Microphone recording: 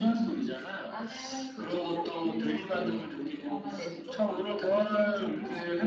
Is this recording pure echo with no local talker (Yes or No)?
No